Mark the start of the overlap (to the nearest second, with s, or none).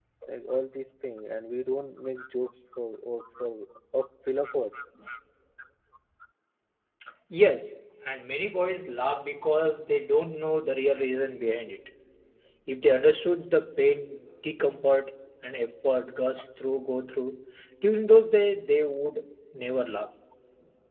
none